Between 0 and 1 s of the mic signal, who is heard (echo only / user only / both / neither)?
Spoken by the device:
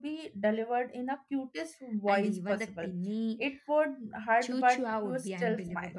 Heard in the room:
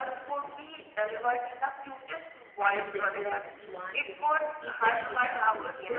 echo only